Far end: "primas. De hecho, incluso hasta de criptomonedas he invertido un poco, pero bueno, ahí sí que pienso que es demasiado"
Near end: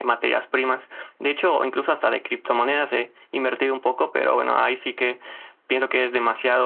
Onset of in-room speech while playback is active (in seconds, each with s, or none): none